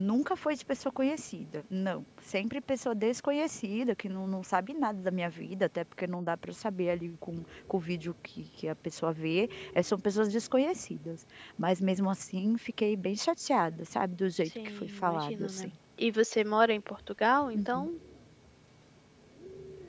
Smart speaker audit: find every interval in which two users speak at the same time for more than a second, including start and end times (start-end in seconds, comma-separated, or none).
14.4-15.7